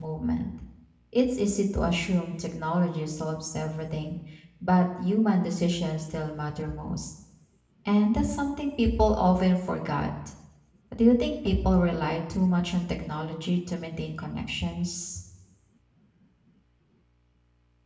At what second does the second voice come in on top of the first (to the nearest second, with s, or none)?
none